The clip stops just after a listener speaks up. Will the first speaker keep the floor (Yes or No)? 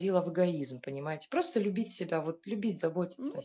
No